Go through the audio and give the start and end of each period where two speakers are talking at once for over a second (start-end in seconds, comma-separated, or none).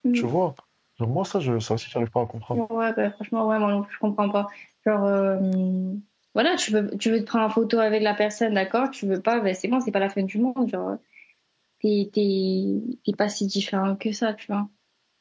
none